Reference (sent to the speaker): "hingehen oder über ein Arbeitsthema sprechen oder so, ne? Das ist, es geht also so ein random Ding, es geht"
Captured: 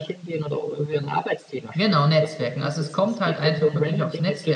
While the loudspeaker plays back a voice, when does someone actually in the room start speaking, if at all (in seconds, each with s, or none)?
1.7 s